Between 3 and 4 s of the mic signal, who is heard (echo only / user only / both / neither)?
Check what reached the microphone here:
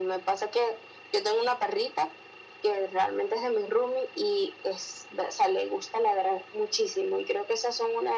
echo only